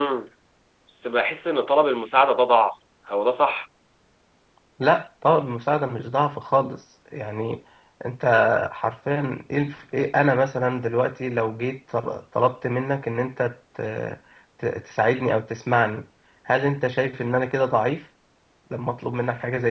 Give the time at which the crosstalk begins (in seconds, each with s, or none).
none